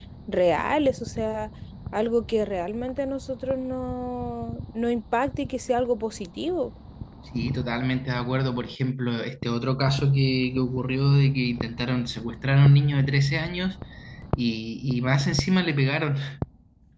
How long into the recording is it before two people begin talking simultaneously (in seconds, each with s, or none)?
none